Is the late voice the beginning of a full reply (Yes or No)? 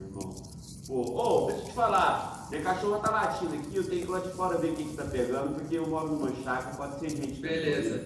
Yes